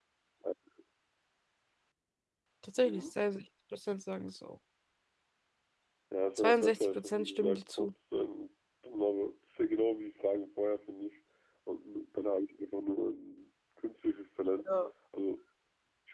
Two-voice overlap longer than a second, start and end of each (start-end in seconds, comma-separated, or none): 6.4-7.9